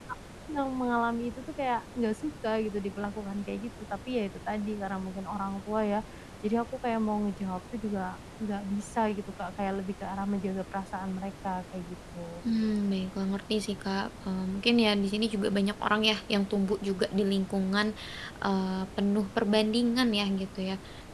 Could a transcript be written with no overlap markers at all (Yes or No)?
Yes